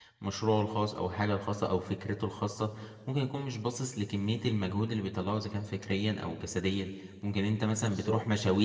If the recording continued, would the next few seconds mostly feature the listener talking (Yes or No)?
No